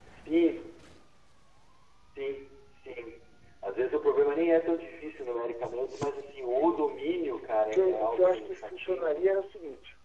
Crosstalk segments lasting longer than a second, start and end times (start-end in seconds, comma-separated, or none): 7.6-9.2